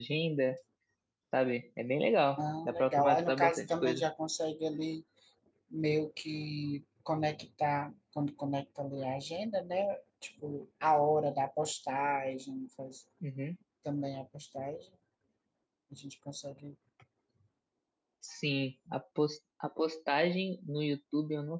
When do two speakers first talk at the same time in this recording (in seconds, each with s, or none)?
2.4 s